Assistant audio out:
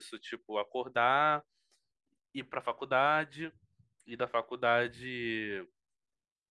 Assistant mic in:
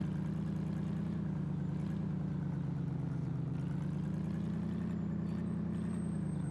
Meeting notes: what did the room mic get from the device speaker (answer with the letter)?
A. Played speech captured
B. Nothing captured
B